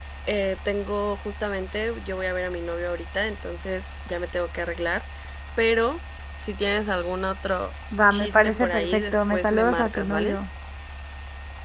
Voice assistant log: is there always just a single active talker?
No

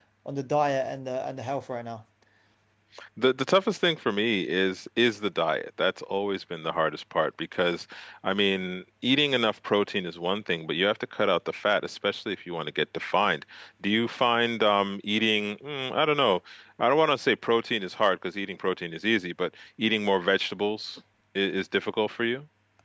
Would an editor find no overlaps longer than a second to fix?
Yes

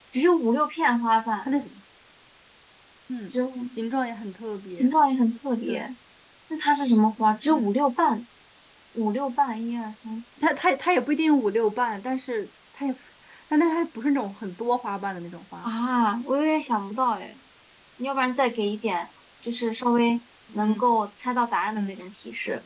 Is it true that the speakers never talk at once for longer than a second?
Yes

